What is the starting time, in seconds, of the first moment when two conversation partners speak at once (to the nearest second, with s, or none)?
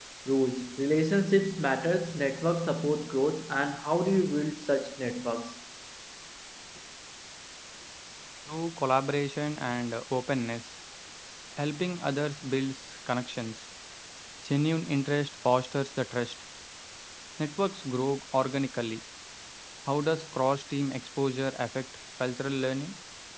none